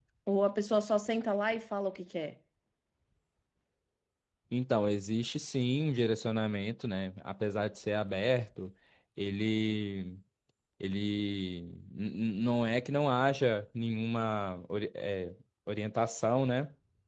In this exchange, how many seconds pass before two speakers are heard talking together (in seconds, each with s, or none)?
none